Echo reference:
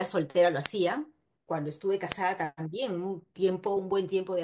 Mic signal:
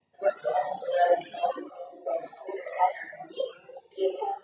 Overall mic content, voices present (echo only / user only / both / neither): echo only